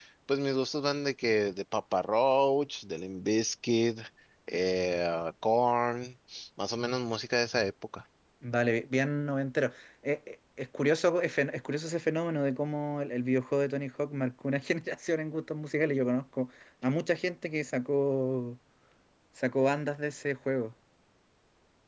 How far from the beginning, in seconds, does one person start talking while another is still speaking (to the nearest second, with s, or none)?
none